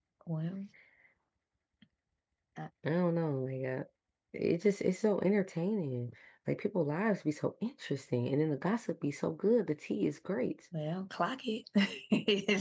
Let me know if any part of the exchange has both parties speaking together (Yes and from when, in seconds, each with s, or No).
No